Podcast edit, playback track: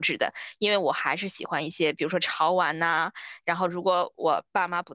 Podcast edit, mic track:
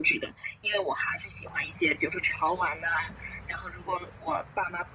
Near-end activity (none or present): none